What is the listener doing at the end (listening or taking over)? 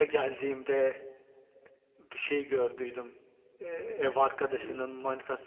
listening